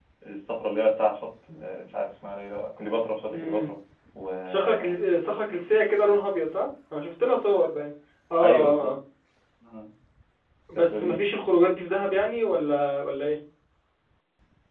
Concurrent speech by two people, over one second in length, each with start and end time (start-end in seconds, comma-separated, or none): none